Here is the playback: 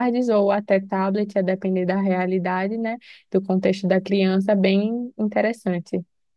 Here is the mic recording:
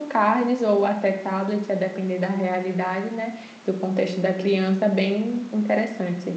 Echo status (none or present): present